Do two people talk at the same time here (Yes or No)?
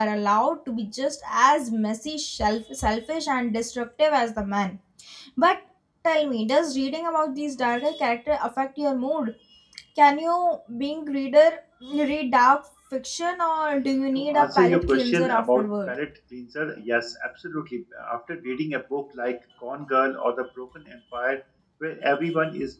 Yes